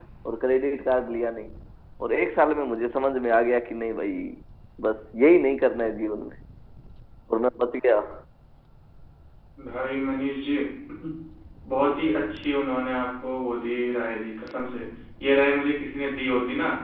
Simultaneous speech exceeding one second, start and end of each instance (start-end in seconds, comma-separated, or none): none